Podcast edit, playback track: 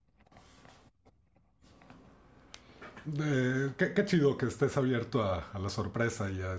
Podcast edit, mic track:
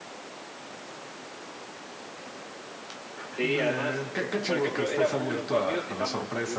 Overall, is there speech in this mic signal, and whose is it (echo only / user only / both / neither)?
both